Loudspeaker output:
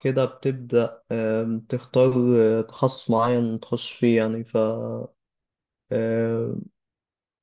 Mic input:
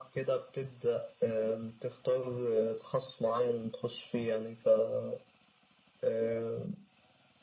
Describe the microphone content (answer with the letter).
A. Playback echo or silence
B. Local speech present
A